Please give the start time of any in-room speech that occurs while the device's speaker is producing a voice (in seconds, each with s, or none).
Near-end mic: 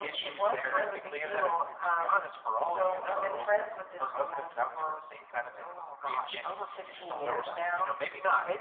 none